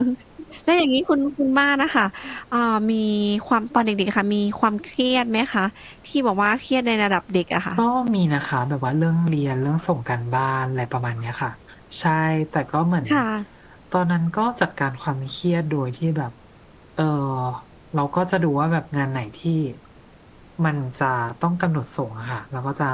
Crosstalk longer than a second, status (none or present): none